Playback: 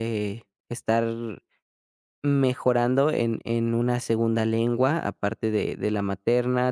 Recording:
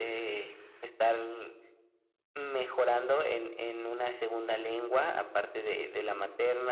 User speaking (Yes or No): No